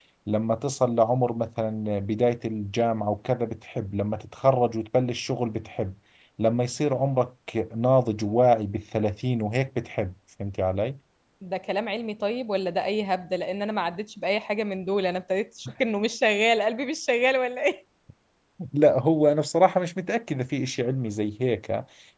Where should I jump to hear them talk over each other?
none

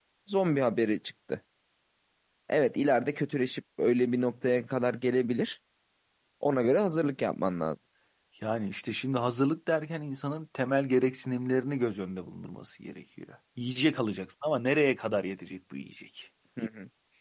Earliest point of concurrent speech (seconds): none

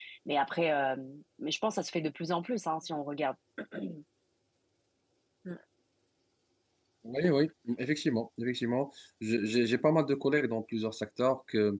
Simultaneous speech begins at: none

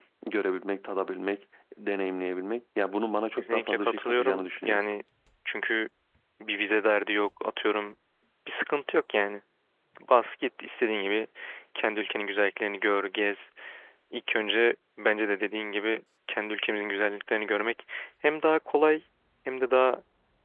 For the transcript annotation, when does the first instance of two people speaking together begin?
3.4 s

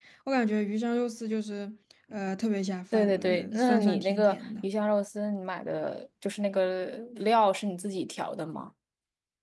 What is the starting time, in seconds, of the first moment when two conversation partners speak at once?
2.9 s

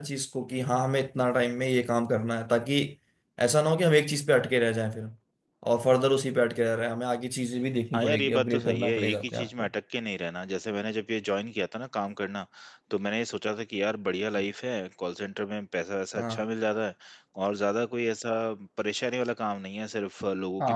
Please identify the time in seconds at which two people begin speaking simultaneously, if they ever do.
7.9 s

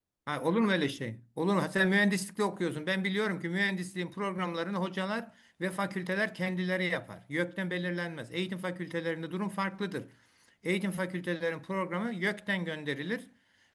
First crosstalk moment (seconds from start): none

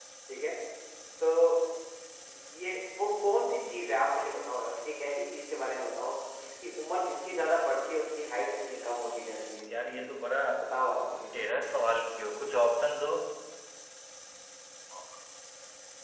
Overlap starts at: none

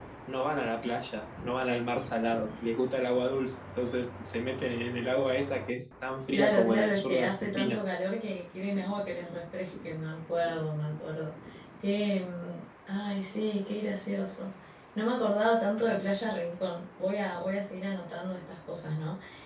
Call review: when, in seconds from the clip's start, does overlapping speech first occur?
6.3 s

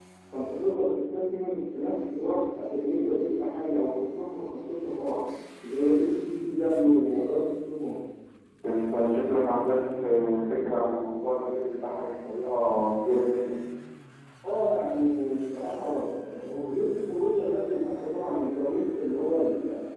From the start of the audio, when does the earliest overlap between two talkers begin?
none

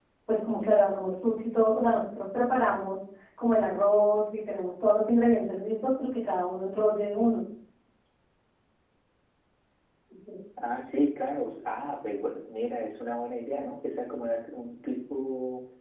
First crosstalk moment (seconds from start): none

